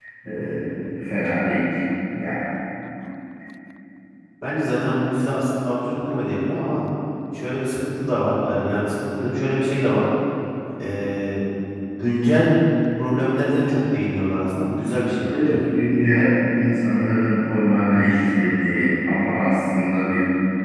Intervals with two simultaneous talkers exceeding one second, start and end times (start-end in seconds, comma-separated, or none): none